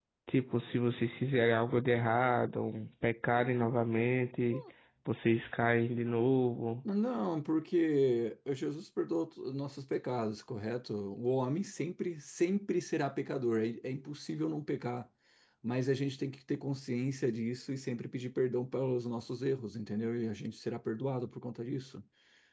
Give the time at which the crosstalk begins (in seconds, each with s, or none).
none